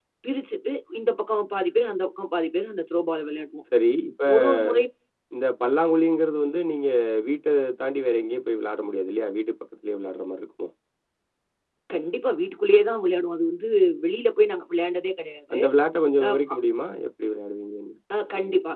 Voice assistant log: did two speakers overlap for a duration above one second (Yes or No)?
No